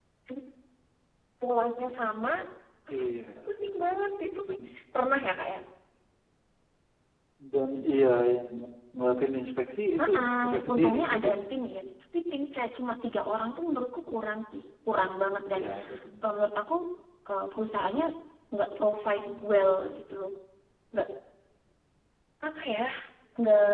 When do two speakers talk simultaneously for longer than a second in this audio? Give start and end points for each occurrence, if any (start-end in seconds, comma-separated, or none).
10.0-11.4